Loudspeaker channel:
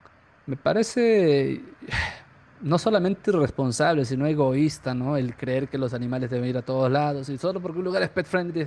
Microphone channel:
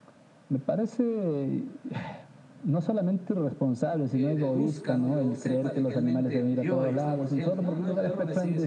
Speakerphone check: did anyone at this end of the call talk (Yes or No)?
Yes